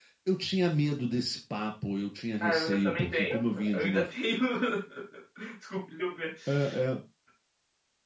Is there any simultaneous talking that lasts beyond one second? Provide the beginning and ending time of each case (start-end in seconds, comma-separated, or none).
2.4-4.0